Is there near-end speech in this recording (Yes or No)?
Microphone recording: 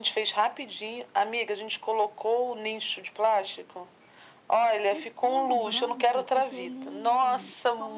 Yes